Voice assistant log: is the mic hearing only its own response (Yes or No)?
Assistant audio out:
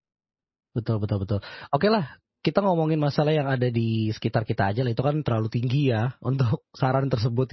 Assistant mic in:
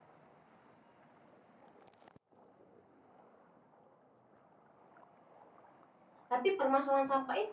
No